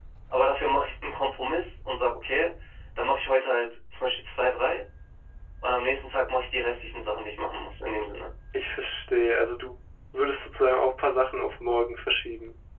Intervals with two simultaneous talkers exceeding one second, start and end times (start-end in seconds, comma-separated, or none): none